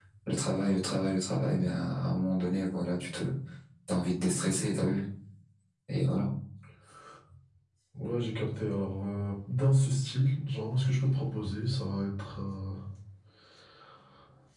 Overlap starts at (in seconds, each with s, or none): none